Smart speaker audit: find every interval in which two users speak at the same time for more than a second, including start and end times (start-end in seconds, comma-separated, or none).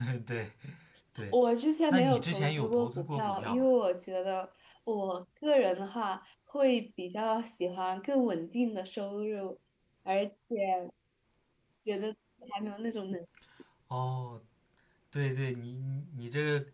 1.9-3.7